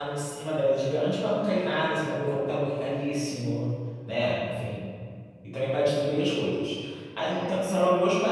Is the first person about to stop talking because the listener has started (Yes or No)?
No